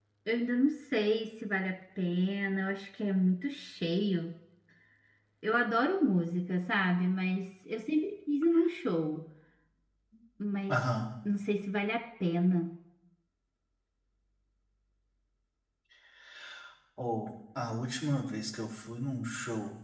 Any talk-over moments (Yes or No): No